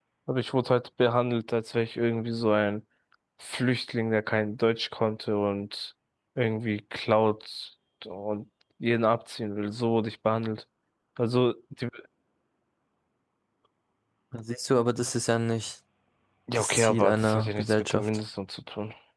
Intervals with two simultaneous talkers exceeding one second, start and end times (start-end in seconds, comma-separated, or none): 16.6-18.1